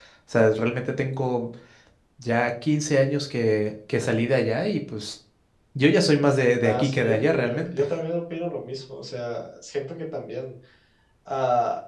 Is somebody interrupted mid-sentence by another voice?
Yes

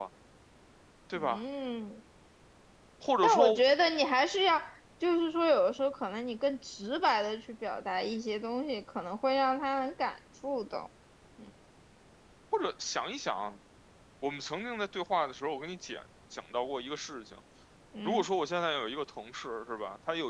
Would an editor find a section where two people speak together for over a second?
No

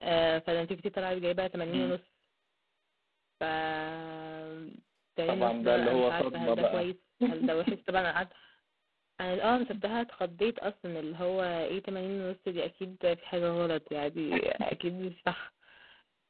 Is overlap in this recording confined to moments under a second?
No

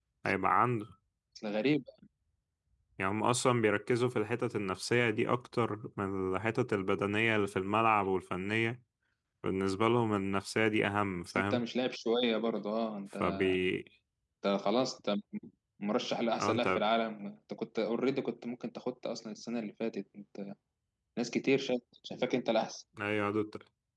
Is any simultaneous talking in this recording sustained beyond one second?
No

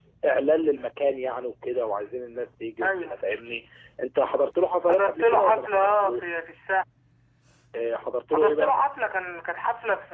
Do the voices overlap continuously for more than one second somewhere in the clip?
Yes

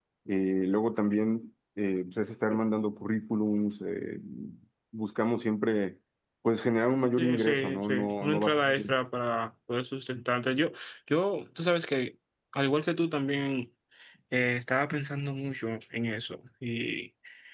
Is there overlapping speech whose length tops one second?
Yes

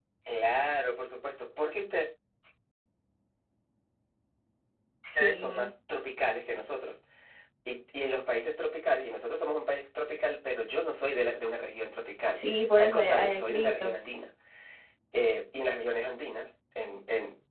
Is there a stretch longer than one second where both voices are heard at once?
Yes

